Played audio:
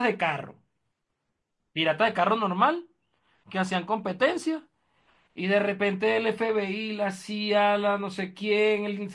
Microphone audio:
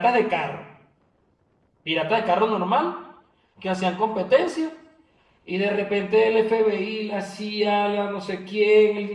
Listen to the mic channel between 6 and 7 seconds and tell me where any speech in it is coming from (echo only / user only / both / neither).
echo only